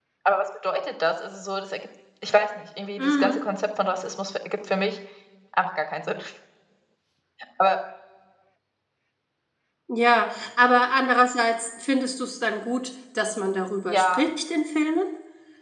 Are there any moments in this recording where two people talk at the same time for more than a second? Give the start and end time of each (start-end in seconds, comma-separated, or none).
none